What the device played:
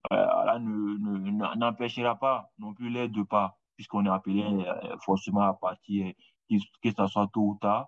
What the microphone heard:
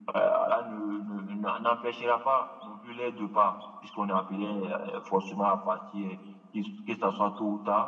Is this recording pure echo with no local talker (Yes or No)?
Yes